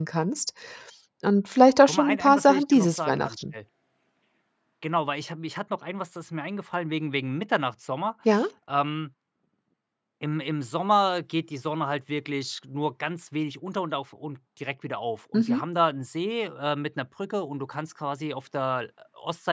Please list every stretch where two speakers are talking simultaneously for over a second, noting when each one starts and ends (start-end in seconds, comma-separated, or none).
1.9-3.4